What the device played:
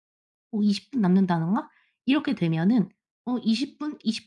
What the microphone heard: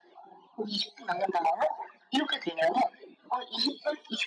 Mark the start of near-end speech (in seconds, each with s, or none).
none